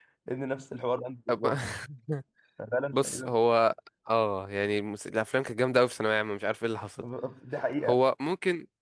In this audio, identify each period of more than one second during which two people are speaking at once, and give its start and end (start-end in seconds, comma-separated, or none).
none